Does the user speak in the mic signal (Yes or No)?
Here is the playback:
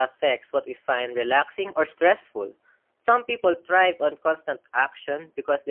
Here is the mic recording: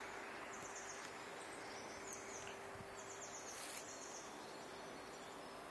No